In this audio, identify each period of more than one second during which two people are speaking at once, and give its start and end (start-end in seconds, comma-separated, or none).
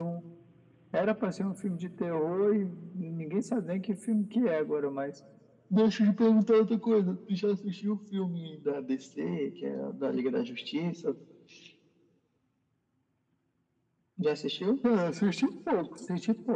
none